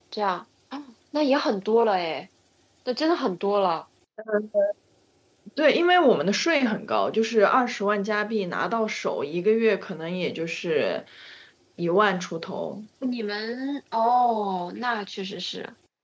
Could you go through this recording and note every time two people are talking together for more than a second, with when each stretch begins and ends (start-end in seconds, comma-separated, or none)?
none